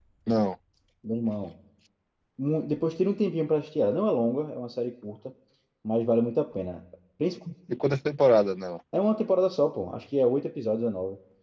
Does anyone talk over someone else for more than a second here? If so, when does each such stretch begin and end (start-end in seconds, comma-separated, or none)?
none